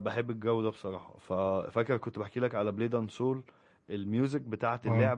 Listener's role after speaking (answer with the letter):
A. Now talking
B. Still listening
B